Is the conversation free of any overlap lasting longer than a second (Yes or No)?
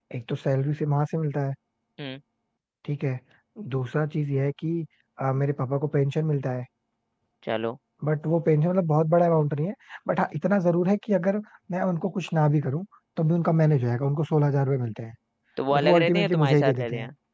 No